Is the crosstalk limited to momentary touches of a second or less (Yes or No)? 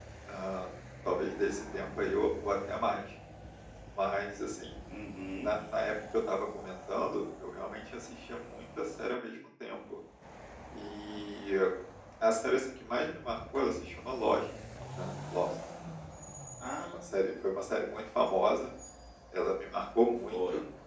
Yes